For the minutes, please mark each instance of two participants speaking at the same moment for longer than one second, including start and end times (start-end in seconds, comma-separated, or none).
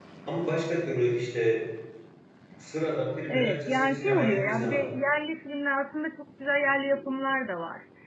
3.3-4.8